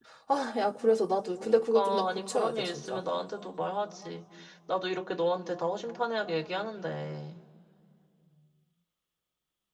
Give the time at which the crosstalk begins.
1 s

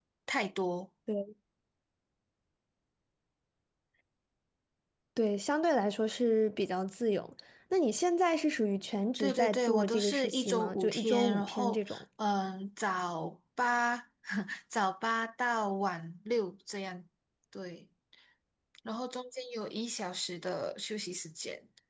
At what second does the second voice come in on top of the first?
9 s

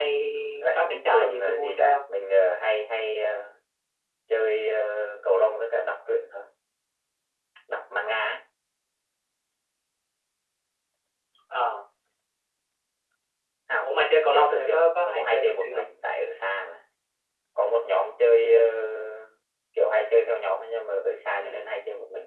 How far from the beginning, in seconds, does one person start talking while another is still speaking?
1 s

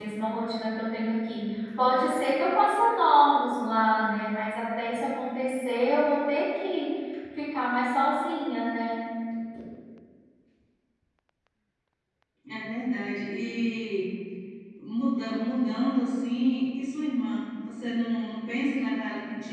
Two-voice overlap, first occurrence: none

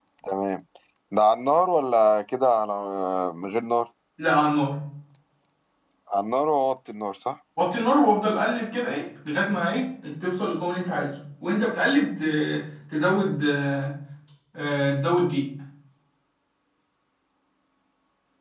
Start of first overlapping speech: none

